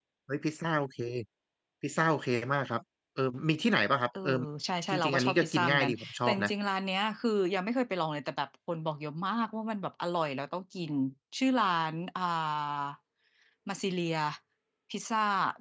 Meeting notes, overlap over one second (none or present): present